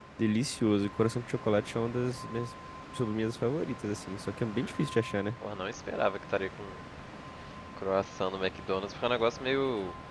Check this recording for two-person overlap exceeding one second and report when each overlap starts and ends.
none

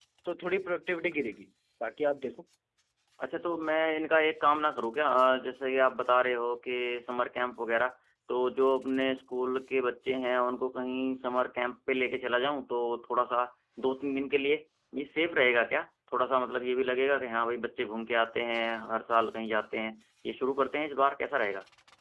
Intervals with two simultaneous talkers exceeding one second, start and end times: none

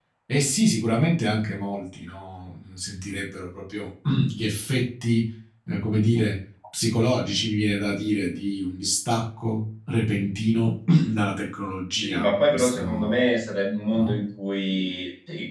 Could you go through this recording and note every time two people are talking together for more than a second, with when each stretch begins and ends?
12.0-13.3

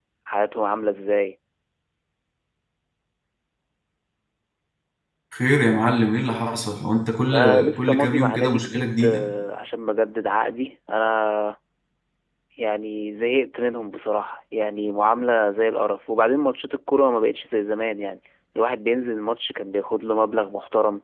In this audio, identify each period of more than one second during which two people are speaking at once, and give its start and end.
7.3-9.2

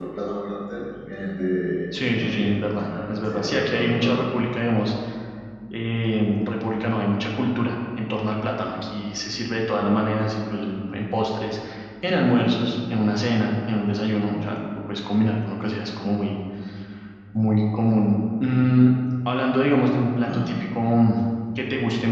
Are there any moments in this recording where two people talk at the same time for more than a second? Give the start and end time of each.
1.9-4.2

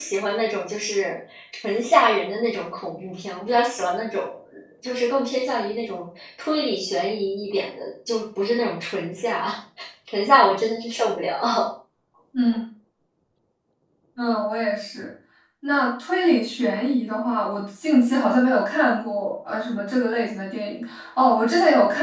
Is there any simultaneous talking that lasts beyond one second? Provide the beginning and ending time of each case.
none

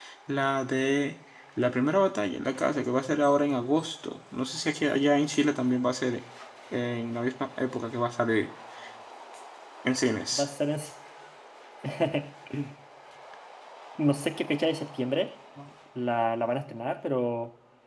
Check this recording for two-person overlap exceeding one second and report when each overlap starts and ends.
none

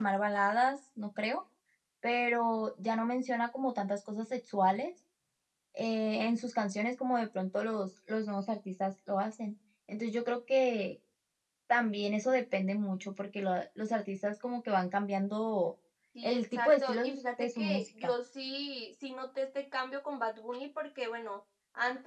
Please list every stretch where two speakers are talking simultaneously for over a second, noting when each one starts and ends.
16.2-18.1

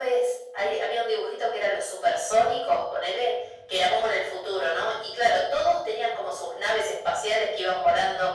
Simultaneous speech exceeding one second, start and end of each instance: none

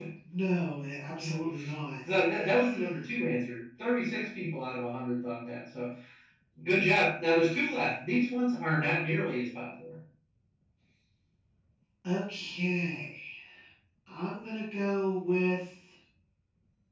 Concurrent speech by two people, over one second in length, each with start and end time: none

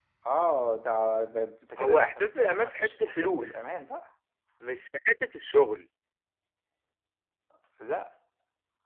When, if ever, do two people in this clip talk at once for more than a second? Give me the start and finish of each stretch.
1.8-3.6

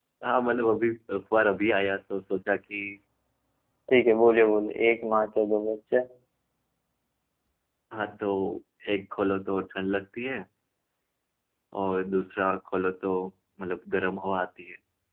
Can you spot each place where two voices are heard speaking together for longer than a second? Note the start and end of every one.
none

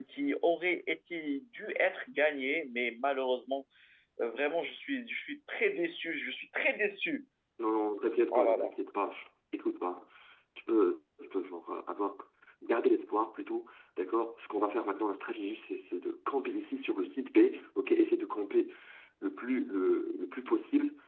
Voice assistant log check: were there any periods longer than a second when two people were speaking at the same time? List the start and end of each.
none

